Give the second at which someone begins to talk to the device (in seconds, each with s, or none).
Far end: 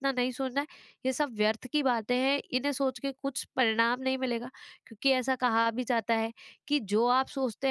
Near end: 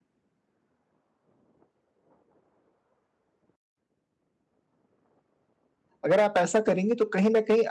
6.0 s